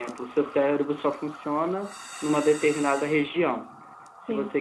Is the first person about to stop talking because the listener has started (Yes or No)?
No